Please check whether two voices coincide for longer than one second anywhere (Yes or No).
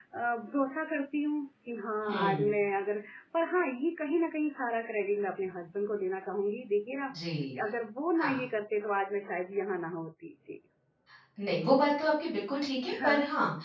No